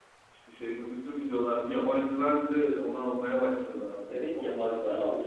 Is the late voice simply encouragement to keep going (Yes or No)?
No